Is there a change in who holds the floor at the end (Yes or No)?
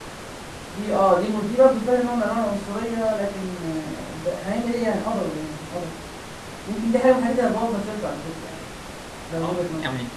Yes